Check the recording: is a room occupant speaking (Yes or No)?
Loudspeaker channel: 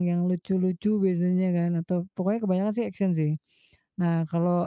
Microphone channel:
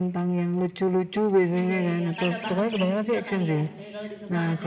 Yes